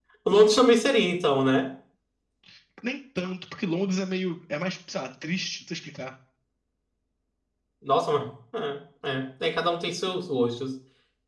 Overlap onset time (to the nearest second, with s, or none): none